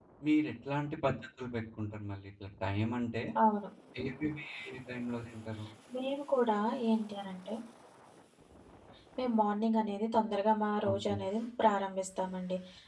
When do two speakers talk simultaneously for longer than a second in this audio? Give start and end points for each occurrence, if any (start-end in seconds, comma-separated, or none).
none